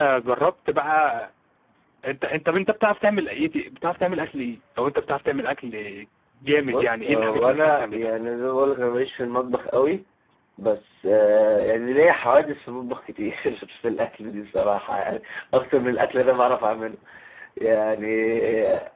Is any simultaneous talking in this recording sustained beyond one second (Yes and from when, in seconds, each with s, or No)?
Yes, from 6.7 s